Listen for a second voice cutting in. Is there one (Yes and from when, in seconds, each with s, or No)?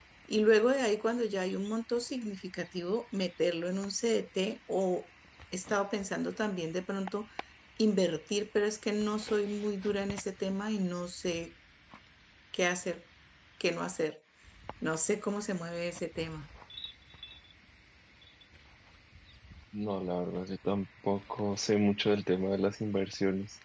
No